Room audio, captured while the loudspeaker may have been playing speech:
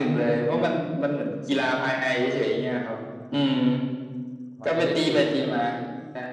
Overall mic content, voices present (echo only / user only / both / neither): both